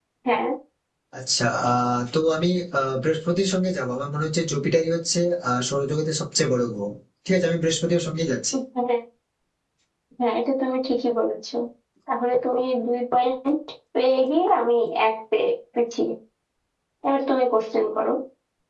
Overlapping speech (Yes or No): No